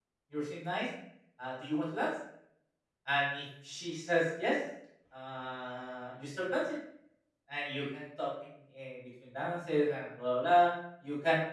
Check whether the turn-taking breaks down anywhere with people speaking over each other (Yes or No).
No